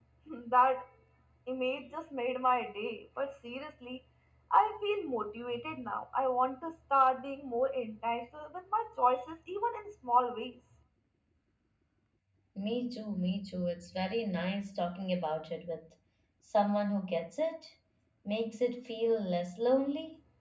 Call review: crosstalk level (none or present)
none